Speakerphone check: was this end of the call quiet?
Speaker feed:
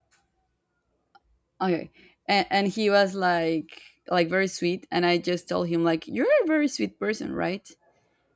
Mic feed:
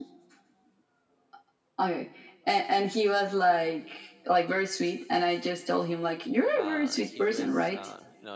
No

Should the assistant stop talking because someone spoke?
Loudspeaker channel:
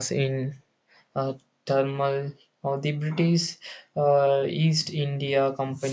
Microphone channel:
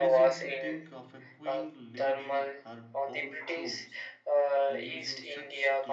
Yes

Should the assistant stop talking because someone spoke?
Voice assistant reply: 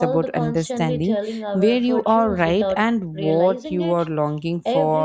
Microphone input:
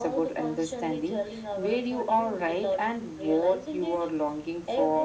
No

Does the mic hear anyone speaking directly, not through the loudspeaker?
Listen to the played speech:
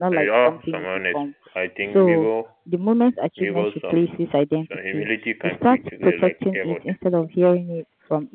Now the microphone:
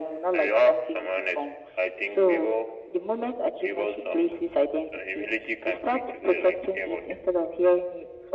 No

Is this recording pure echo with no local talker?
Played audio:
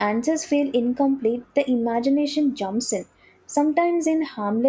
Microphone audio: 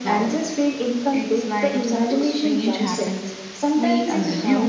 No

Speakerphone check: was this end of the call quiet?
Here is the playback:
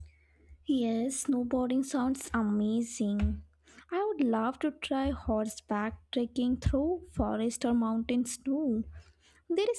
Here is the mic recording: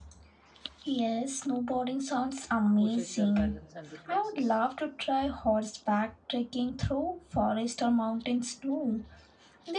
No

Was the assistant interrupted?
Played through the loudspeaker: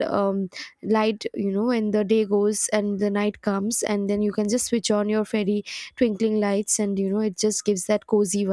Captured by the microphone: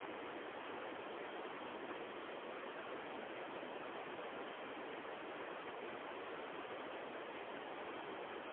No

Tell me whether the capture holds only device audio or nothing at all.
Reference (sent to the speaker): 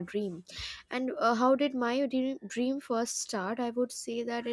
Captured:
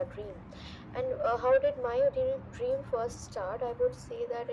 Yes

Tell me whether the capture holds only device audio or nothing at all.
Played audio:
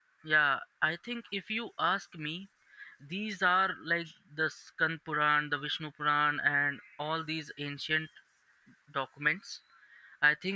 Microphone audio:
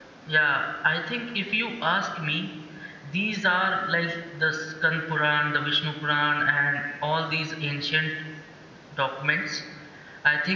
Yes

